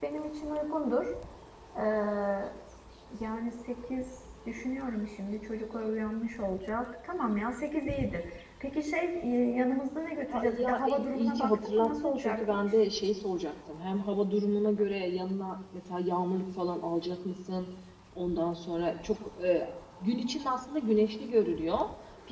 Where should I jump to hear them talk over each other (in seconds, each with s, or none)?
10.3 s